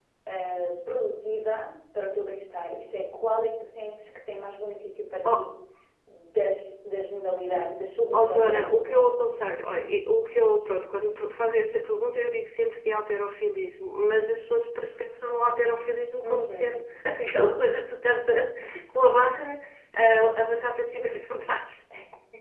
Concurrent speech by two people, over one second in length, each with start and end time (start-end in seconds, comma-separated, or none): 8.1-9.4